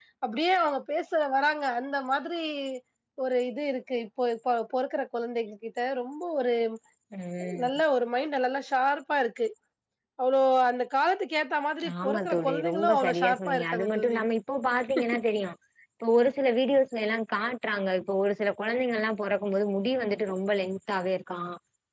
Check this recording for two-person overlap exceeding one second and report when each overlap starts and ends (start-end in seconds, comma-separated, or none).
12.0-14.2